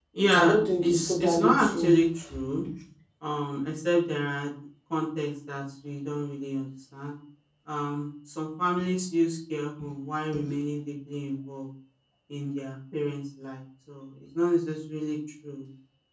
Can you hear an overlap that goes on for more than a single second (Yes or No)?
Yes